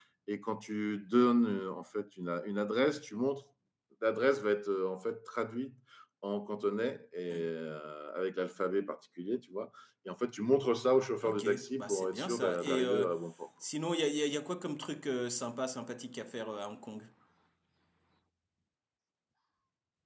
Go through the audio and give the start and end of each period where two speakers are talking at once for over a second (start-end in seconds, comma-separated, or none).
11.2-13.0